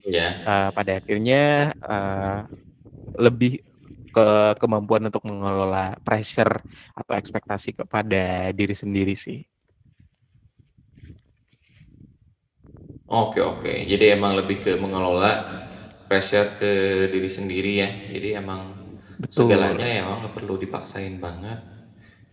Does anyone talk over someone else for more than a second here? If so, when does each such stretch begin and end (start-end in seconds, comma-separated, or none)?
none